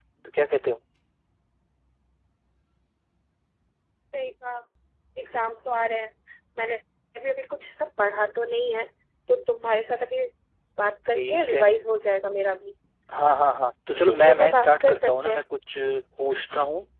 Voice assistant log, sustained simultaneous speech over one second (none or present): present